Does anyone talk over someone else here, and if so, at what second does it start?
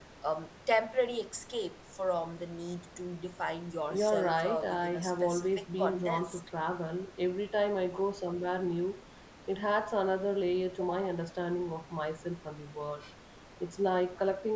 4.0 s

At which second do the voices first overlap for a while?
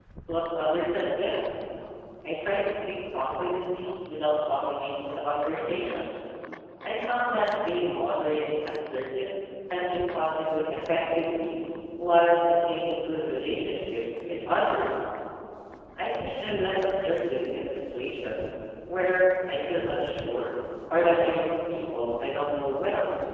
none

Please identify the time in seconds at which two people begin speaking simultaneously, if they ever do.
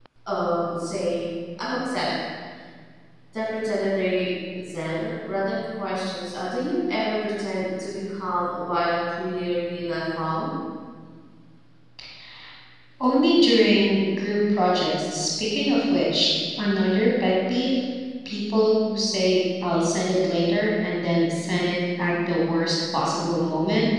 none

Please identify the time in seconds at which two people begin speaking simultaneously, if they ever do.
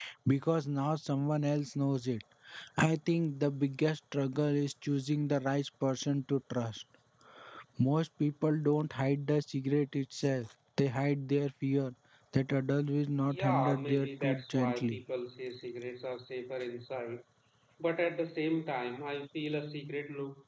13.3 s

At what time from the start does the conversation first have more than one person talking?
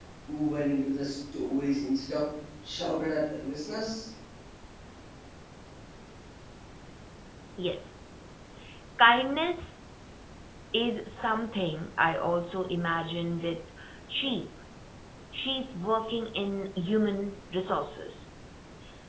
none

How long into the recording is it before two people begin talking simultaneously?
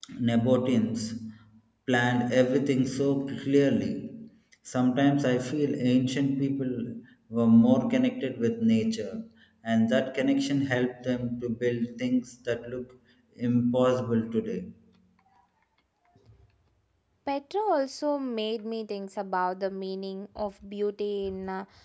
none

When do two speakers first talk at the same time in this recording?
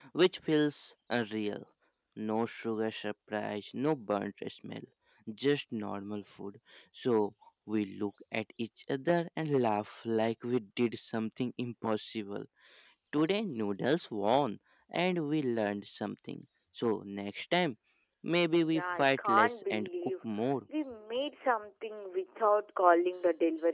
18.6 s

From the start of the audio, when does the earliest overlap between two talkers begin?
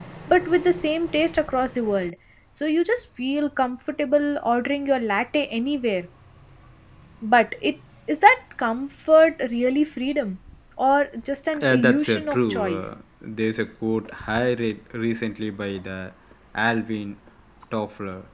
11.5 s

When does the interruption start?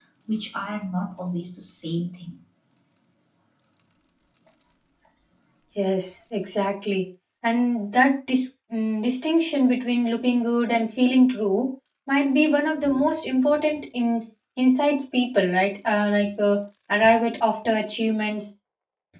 none

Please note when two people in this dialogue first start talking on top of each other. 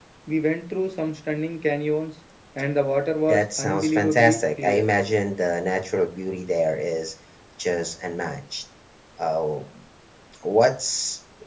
3.3 s

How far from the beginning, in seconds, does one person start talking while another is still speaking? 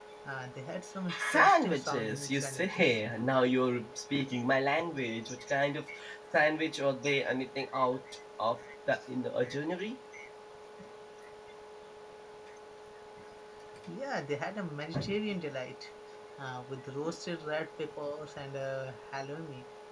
1.3 s

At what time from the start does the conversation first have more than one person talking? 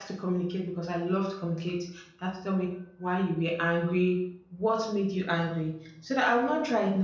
none

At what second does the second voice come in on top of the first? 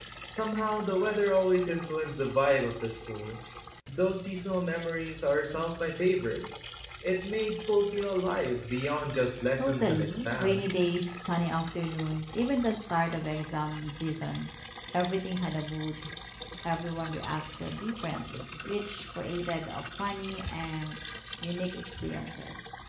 9.6 s

